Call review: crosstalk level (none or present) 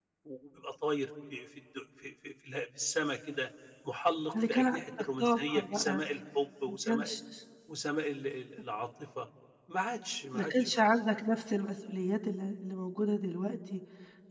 present